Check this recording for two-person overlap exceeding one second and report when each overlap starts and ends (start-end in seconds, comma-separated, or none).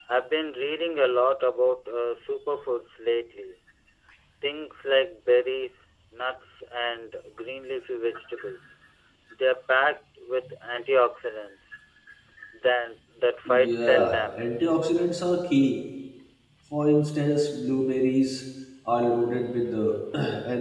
13.5-14.7